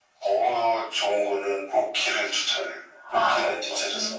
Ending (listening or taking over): taking over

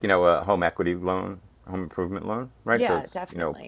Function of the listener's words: listening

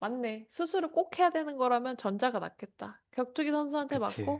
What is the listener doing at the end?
listening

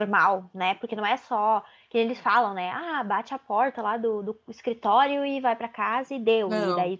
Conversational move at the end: listening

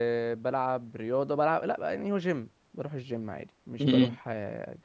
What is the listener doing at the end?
listening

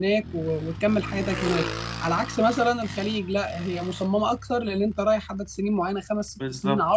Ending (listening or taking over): listening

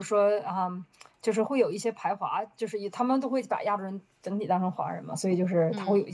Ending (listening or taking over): listening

